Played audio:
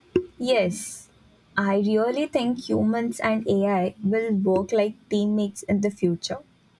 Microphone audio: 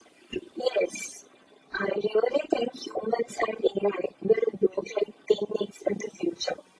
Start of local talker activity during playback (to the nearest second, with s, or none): none